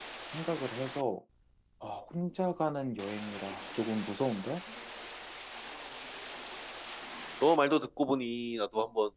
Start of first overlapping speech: none

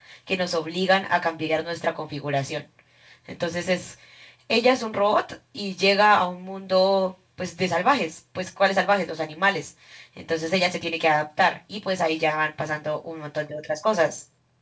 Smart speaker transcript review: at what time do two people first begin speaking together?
none

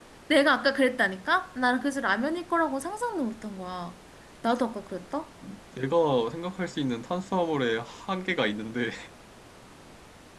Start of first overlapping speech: none

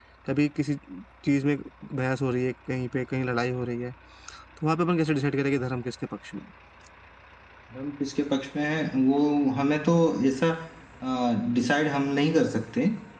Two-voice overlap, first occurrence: none

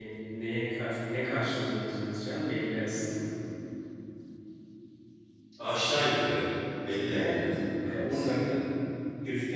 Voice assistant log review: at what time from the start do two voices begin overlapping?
7 s

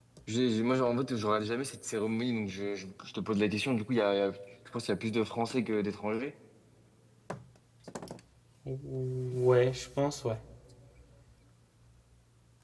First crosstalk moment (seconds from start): none

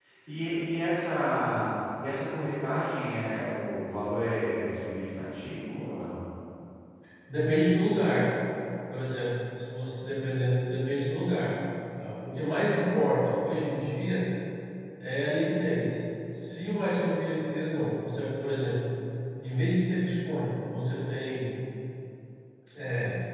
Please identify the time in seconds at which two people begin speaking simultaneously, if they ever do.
none

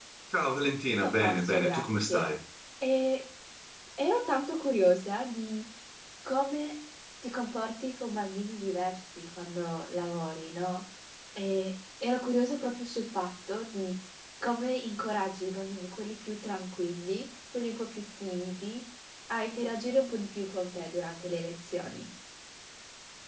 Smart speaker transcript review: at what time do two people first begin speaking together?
1 s

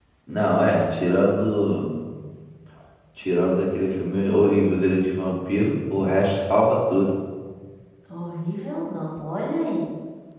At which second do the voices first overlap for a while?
none

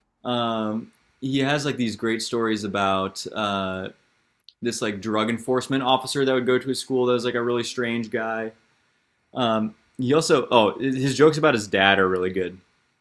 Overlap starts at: none

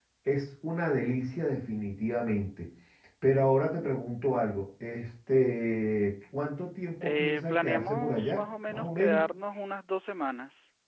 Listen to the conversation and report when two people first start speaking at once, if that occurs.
7 s

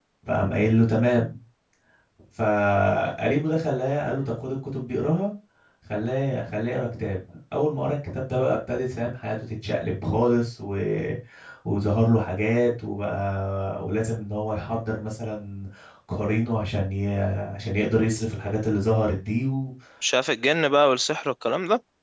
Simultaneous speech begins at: none

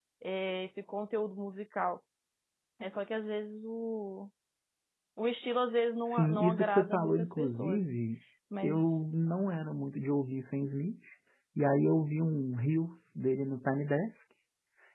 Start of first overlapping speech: 6 s

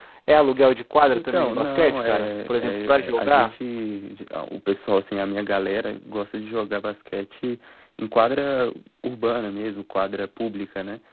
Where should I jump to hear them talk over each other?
1 s

